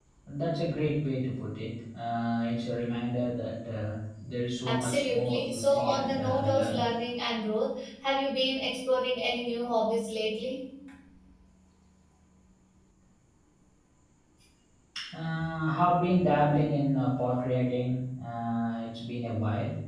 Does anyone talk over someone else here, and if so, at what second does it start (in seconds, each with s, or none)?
4.7 s